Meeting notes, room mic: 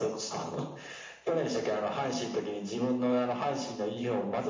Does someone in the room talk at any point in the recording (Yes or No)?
No